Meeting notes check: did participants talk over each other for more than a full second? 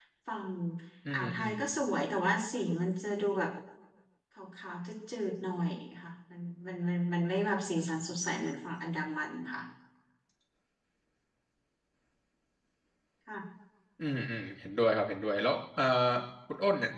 No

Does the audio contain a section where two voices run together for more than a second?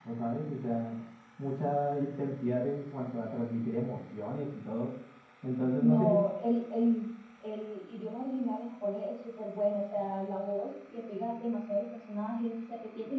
No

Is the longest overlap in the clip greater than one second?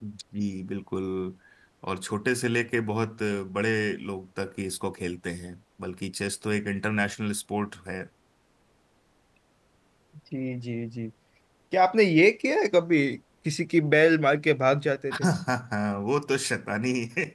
No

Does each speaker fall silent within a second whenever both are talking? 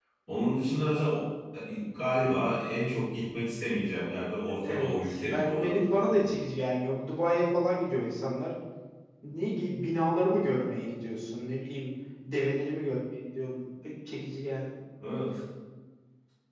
No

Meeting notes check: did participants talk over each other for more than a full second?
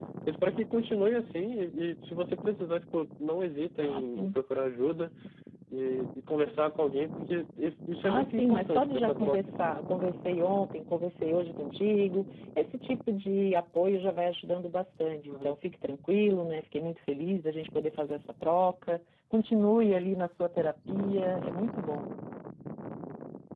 Yes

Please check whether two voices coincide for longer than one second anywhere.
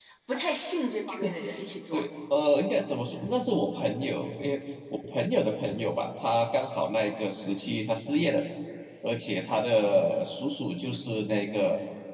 No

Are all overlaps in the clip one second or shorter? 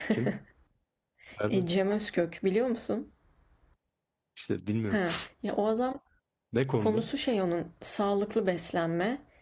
Yes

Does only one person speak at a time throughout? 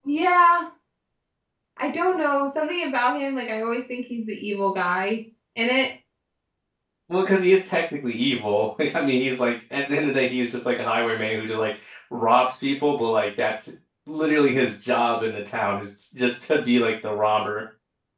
Yes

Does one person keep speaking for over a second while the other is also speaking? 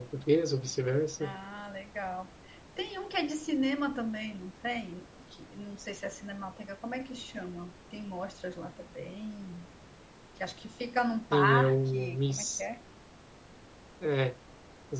Yes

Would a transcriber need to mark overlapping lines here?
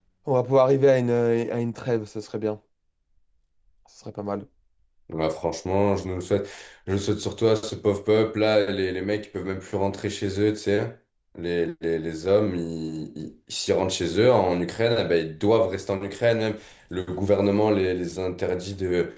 No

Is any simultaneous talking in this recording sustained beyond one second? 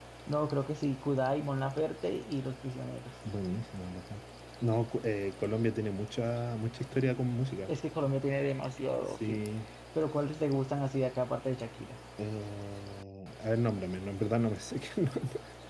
No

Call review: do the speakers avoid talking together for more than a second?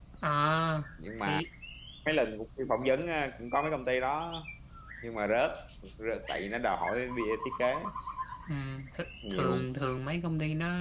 Yes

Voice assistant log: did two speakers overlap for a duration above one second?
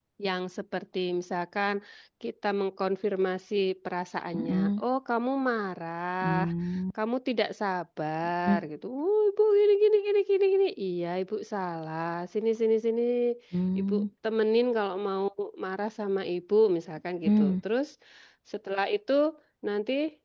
No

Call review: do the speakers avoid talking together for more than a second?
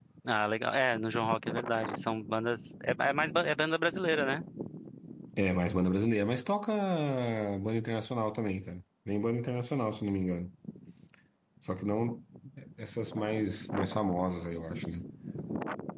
Yes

